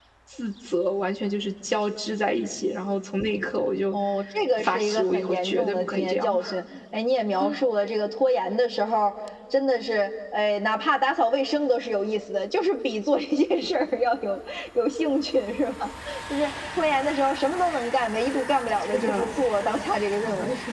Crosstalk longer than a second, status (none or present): present